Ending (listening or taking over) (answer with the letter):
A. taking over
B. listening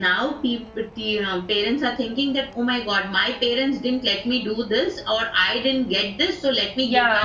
A